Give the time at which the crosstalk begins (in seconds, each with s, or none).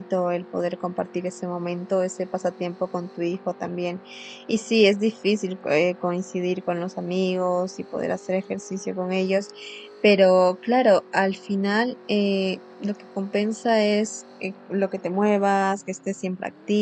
none